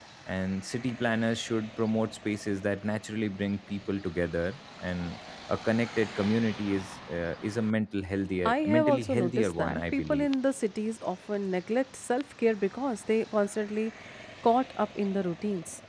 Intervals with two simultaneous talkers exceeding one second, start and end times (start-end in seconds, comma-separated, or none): 8.4-10.3